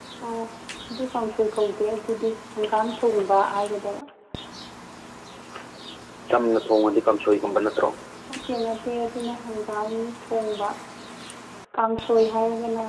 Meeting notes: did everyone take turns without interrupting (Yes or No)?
Yes